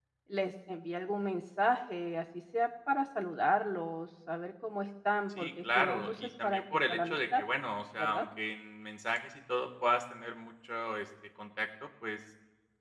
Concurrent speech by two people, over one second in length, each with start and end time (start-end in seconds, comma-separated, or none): 5.4-7.4